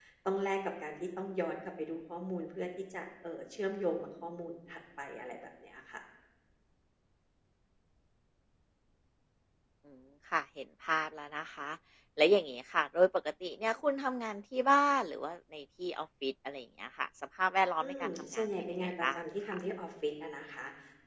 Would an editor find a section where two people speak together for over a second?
Yes, from 17.8 s

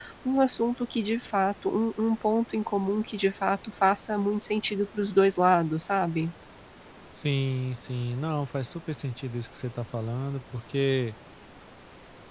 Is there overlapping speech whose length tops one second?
No

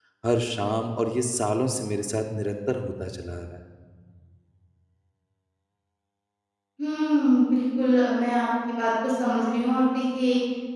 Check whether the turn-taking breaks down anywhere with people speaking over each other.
No

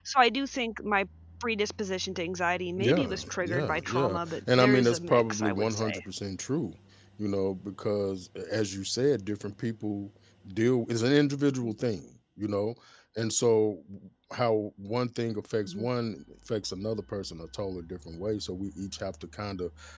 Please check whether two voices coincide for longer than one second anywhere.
Yes, from 2.8 s

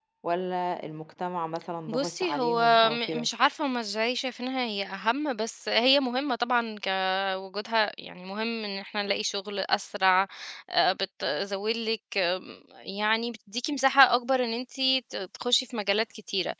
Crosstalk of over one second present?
Yes, from 1.9 s

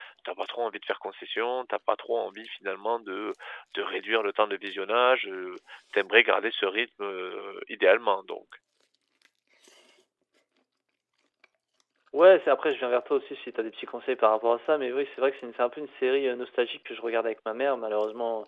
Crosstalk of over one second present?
No

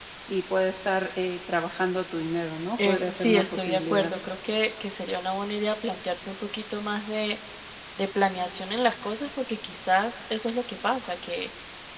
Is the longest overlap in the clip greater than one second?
Yes, from 2.8 s

